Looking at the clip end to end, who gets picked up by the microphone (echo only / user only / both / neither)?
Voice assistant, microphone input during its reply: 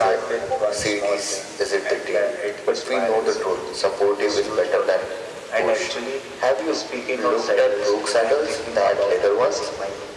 echo only